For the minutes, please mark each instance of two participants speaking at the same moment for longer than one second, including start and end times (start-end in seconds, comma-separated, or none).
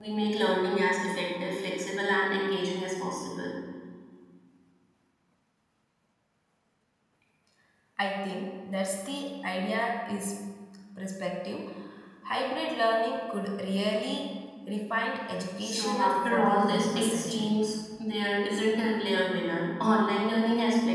15.6-17.6